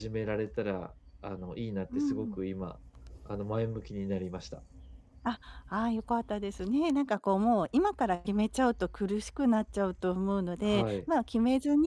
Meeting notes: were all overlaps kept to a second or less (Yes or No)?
Yes